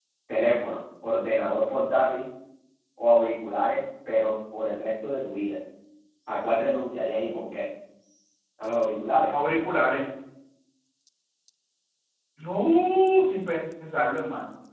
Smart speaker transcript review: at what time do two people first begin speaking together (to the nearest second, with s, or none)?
none